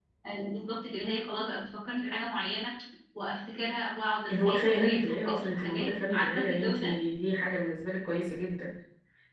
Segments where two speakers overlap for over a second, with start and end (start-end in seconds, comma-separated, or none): 4.3-6.9